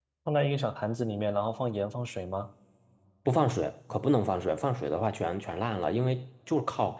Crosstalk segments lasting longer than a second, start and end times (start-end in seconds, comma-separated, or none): none